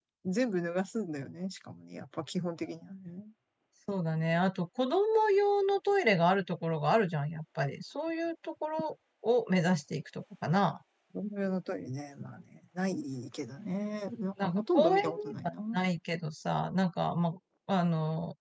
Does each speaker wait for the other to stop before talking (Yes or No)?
No